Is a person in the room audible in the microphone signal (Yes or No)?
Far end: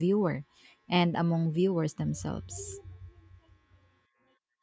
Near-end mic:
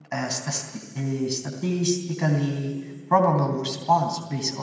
Yes